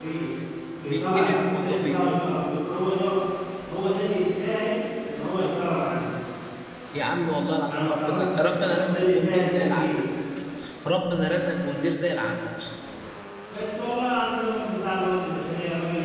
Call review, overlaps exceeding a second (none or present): present